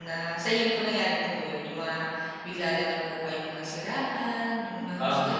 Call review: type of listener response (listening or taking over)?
taking over